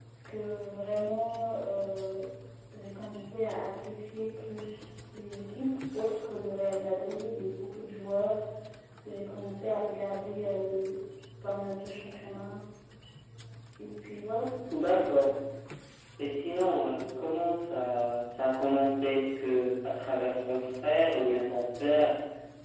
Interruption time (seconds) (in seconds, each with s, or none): none